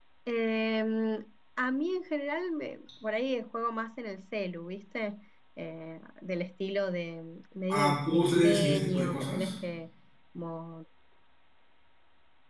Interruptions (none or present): present